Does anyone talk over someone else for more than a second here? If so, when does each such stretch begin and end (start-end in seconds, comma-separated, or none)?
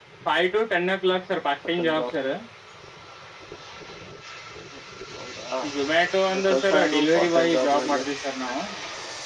6.5-8.0